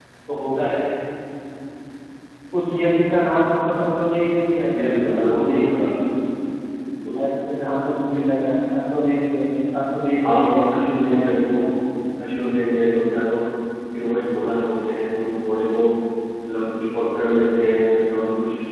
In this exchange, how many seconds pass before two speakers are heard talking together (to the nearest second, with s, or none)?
5 s